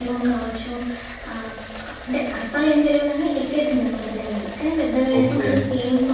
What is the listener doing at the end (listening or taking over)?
listening